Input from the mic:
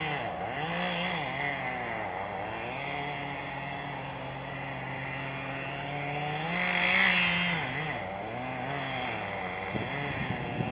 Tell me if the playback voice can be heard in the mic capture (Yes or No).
No